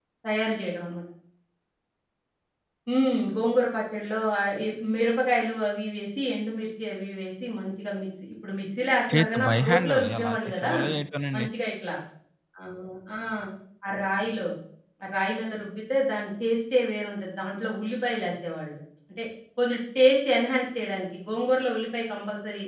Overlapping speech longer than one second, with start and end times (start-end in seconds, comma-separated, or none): 9.1-10.7